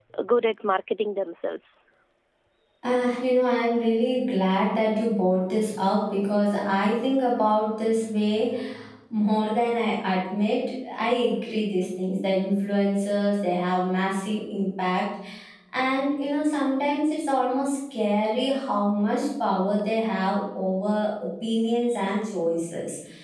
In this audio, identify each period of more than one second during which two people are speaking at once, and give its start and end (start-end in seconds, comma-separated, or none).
none